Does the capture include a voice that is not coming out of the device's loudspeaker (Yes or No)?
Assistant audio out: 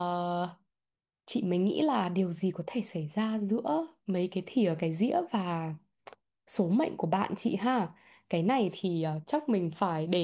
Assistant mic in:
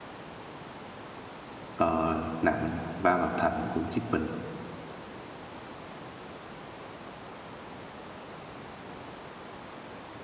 Yes